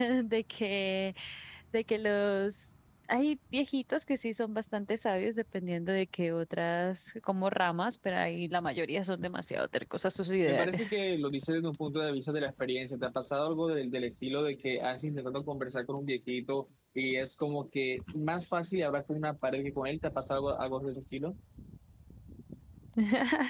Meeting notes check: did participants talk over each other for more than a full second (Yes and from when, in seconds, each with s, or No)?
No